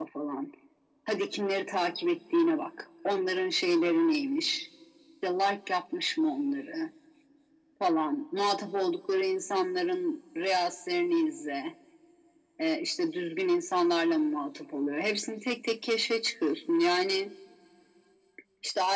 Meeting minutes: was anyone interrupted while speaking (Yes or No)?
No